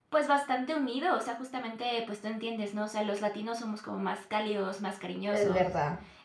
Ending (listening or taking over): listening